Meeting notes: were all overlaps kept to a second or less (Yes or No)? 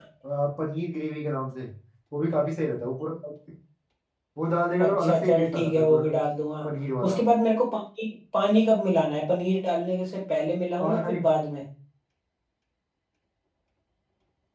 No